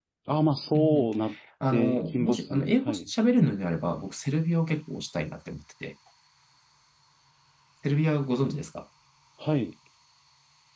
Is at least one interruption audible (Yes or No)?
Yes